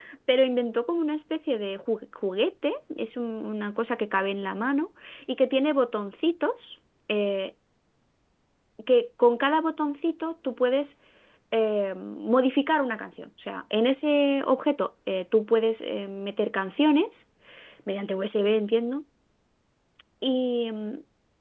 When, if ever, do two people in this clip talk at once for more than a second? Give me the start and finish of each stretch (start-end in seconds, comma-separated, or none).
none